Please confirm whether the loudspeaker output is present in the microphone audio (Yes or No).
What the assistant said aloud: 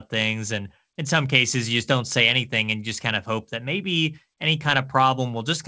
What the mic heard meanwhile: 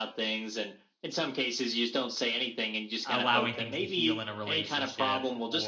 Yes